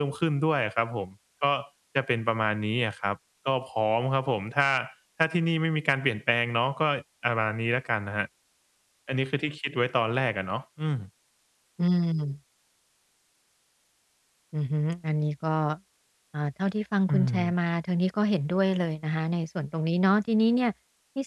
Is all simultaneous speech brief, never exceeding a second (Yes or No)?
Yes